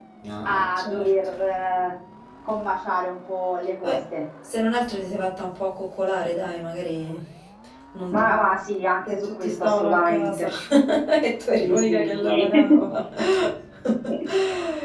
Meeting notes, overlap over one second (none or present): present